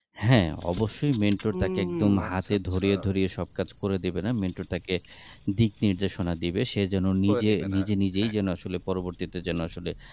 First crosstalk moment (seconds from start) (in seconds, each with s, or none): 1.6 s